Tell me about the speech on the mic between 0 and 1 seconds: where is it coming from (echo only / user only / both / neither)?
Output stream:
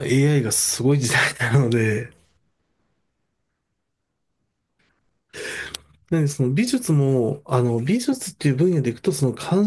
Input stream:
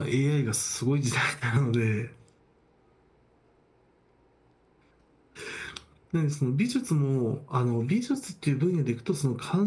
echo only